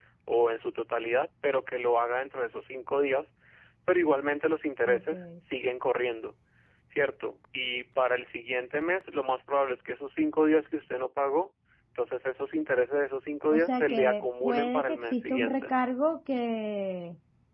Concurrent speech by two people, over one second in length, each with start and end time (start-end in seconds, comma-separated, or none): 13.5-15.7